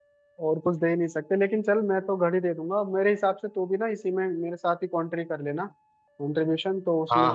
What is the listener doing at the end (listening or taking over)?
taking over